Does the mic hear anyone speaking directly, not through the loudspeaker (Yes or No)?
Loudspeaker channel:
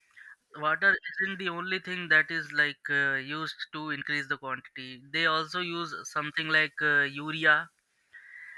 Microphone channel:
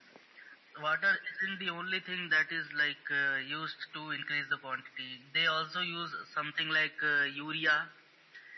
No